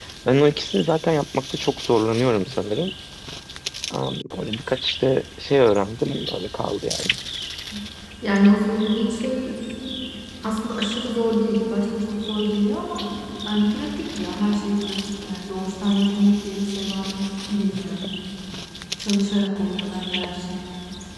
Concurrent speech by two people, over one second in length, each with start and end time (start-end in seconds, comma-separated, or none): none